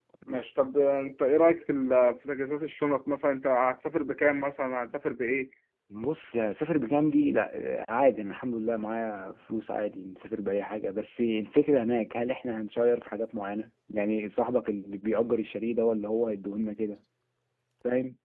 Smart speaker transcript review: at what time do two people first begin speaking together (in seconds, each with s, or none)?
none